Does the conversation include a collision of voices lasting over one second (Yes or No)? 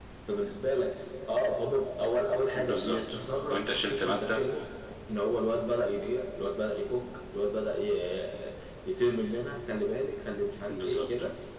Yes